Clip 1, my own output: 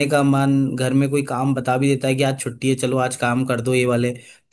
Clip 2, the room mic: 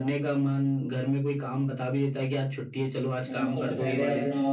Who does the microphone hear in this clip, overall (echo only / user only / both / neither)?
both